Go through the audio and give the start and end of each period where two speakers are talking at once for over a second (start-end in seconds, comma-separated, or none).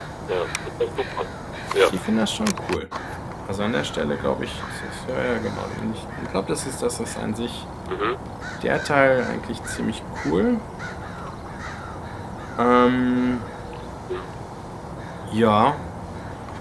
none